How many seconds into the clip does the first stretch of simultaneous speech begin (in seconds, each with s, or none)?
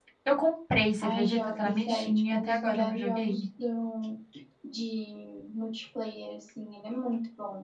1.0 s